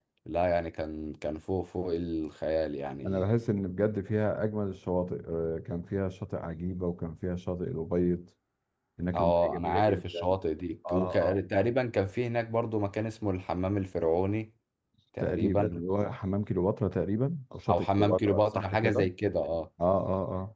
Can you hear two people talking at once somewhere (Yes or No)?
Yes